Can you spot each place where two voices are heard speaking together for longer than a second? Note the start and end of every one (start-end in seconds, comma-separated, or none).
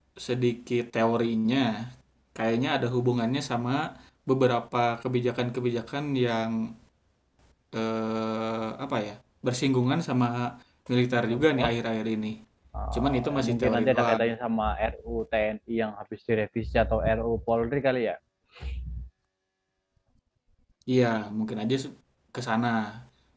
12.9-14.2